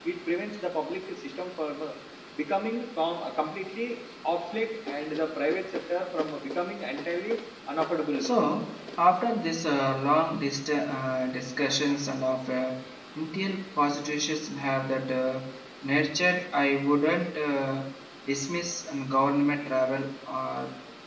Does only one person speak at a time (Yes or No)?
Yes